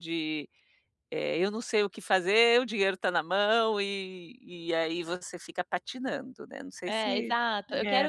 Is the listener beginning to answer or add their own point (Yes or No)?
Yes